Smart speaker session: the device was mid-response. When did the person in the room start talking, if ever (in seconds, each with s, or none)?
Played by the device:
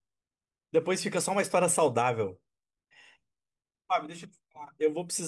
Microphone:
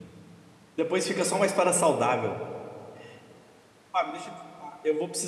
none